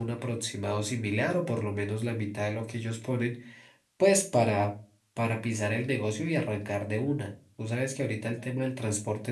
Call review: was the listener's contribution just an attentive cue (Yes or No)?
Yes